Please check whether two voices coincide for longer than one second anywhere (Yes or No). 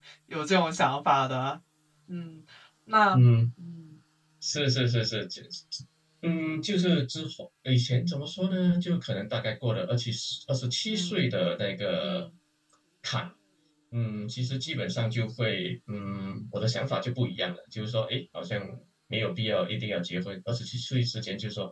No